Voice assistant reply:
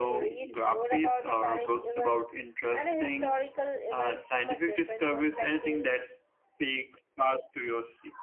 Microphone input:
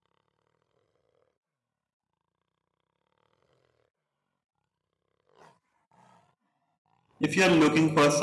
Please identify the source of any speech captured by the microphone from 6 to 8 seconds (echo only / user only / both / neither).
user only